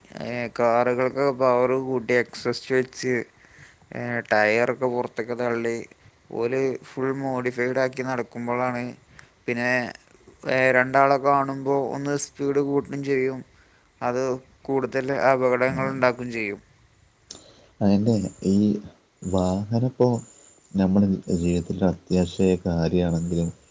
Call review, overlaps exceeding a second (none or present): none